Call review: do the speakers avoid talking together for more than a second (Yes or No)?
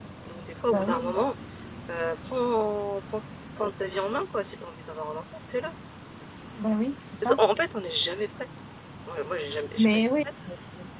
Yes